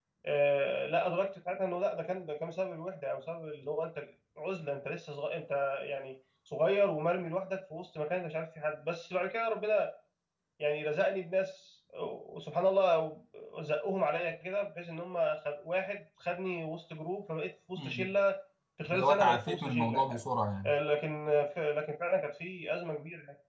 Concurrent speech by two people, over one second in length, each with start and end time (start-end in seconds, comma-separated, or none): 18.9-20.2